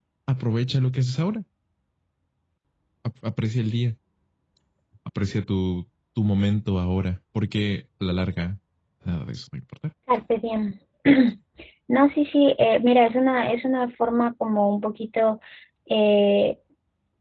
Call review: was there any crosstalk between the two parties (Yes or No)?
No